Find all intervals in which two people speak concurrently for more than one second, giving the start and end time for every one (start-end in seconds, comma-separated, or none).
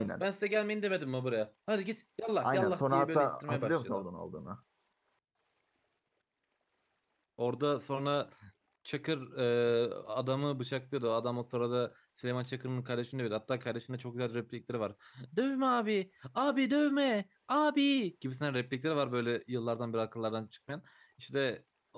2.4-4.0